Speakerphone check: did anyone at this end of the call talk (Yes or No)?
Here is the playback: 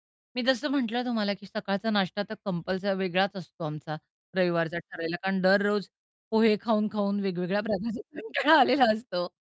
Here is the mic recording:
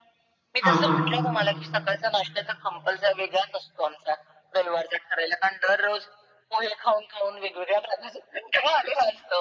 Yes